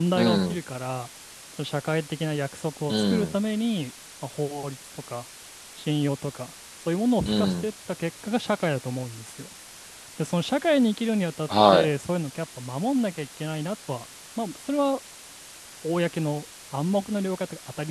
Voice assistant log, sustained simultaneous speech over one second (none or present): none